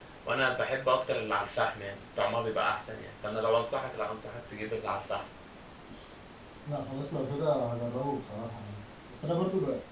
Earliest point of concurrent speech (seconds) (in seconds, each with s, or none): none